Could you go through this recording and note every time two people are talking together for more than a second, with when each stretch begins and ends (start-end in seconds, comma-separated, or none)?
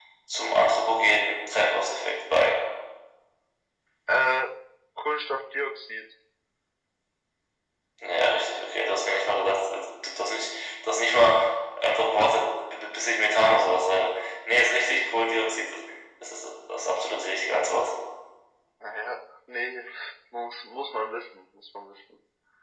none